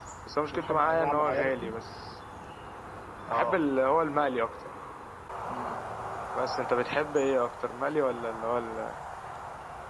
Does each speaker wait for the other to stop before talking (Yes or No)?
No